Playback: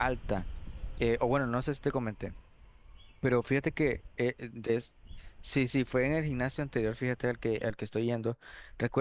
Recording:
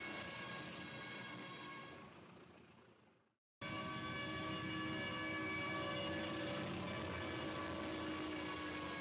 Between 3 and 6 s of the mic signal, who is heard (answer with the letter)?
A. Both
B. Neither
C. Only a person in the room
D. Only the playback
B